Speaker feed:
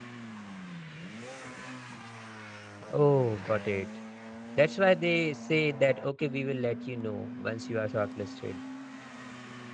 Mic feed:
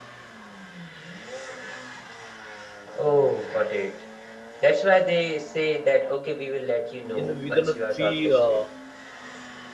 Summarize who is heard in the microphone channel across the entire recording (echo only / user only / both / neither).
both